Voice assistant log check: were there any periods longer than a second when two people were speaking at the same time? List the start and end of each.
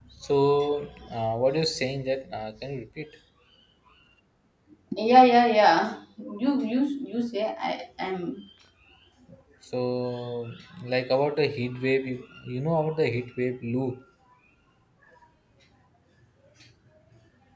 none

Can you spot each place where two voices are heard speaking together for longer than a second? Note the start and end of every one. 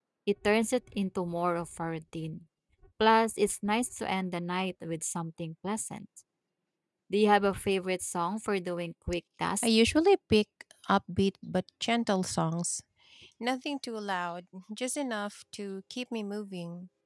none

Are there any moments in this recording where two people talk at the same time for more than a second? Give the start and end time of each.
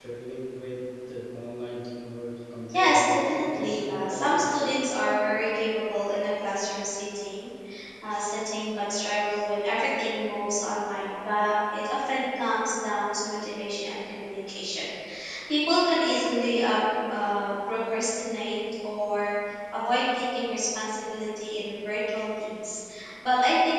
2.7-4.7

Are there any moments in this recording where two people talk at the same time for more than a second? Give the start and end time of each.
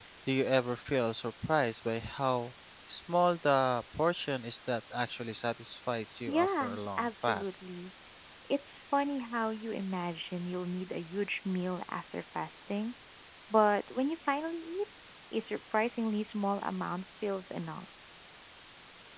6.3-7.5

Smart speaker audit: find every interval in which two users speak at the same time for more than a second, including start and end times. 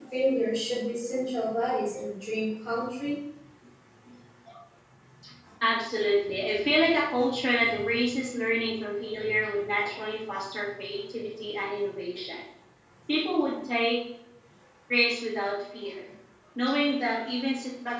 none

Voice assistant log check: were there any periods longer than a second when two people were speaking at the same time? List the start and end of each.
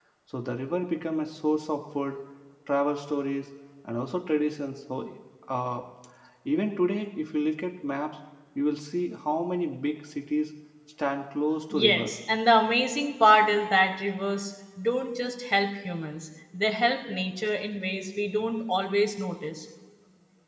none

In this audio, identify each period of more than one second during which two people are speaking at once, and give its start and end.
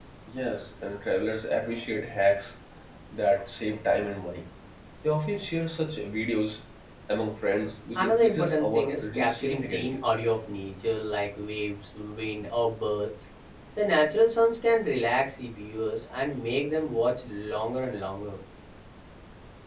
8.0-9.9

